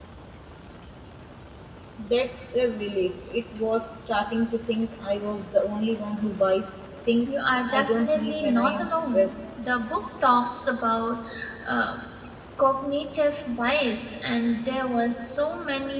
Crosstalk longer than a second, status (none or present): present